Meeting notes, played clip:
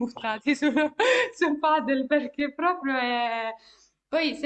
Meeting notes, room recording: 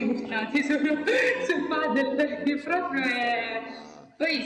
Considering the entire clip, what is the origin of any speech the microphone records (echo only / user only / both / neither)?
both